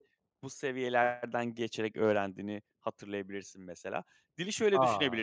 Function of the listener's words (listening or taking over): listening